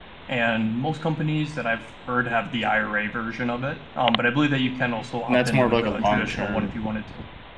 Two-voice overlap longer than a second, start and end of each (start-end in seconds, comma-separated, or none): 5.3-6.7